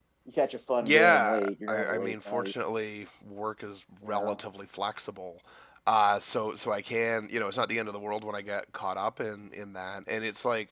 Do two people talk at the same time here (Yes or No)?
Yes